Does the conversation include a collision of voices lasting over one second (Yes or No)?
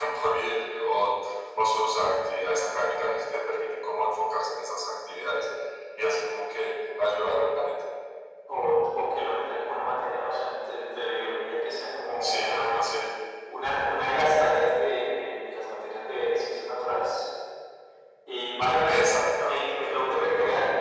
Yes